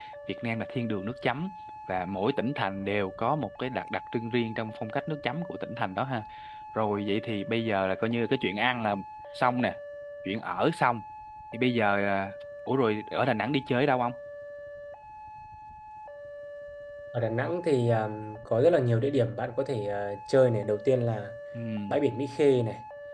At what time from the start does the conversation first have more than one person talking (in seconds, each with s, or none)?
none